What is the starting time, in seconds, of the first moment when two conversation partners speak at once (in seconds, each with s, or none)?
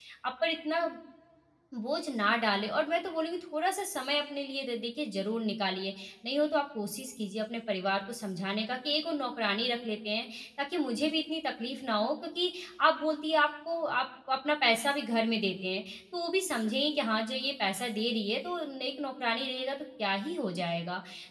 none